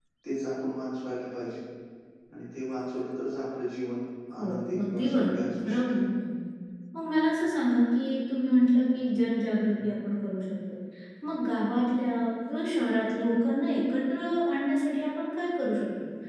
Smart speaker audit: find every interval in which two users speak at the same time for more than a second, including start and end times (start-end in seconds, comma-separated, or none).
4.4-6.0